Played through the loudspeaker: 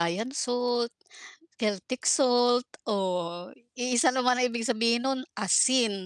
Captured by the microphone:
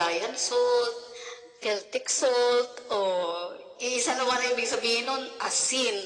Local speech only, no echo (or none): none